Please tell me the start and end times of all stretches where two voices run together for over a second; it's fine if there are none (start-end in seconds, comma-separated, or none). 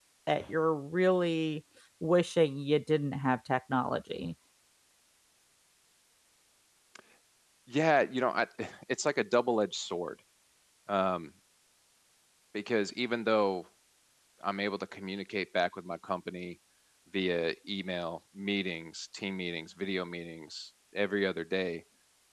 none